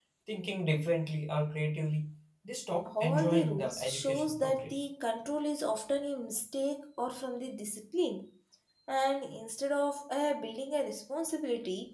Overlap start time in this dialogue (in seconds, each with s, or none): 2.9 s